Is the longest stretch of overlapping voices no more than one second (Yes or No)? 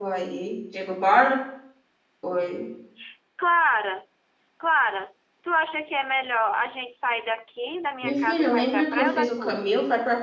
No